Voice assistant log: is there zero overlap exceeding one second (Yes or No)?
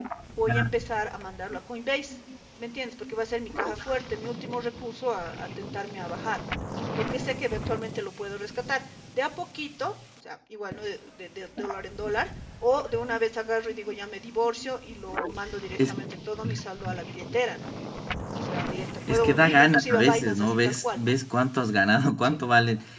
No